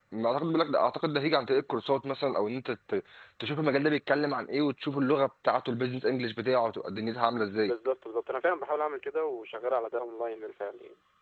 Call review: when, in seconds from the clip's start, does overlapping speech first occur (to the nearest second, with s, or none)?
none